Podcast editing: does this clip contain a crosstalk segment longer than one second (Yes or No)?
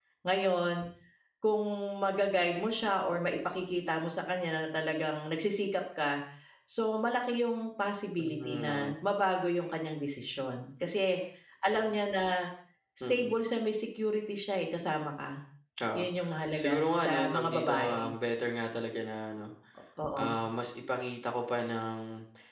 Yes